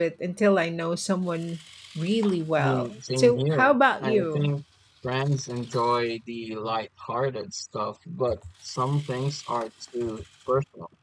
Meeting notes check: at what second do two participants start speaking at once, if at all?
2.6 s

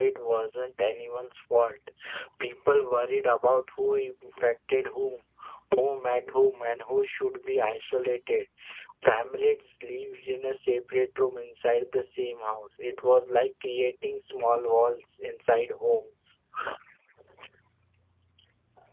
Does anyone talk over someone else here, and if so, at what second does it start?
none

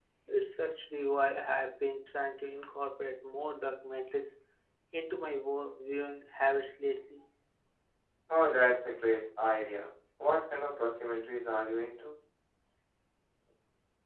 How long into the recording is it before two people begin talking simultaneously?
none

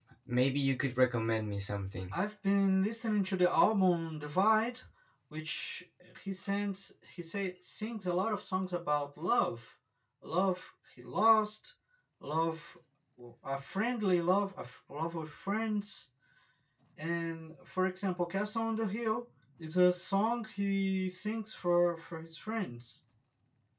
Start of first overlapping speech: none

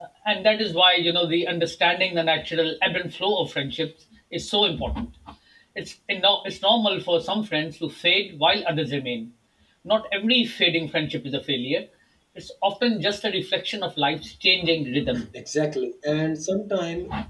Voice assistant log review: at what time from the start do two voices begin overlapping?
none

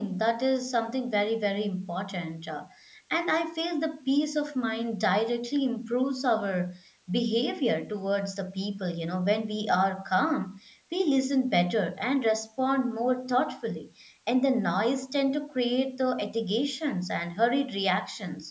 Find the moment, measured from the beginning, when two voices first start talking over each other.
none

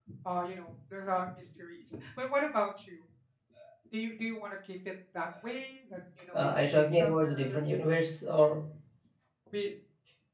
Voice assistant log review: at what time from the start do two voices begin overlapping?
6.3 s

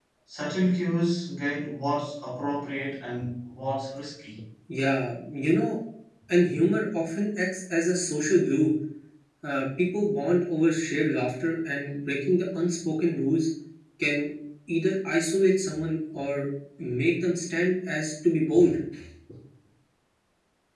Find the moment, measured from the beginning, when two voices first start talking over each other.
none

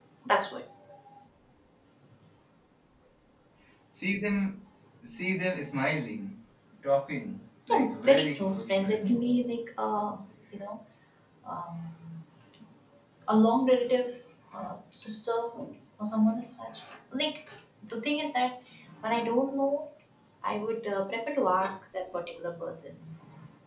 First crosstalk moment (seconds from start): 7.7 s

